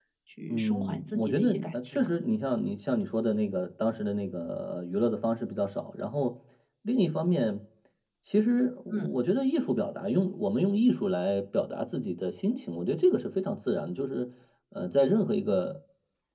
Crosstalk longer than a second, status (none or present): present